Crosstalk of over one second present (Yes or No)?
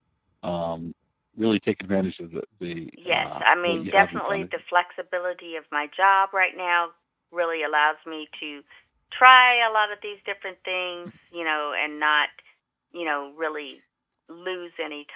Yes